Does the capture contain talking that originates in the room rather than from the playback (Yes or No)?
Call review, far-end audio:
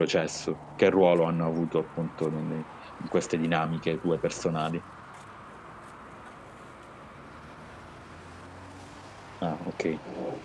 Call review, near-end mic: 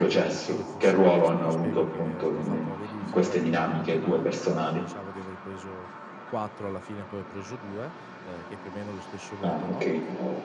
Yes